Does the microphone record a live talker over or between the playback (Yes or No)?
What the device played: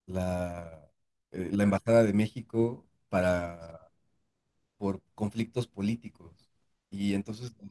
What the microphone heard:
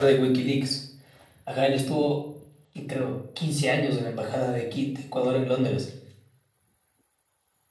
Yes